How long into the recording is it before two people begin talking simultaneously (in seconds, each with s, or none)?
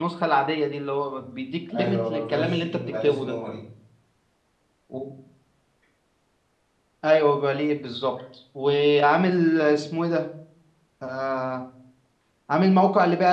1.7 s